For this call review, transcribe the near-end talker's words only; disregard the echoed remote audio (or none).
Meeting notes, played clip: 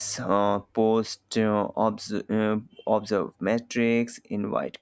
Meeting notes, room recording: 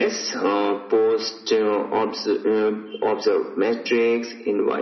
none